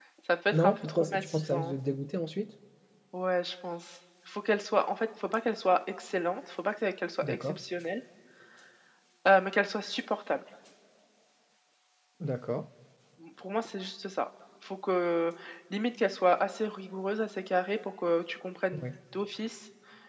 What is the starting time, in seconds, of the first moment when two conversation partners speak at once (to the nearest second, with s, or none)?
1 s